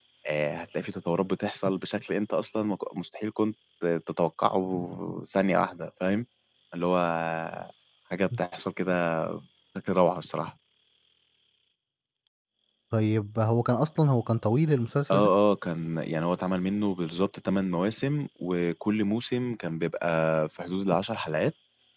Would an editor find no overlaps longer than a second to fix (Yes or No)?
Yes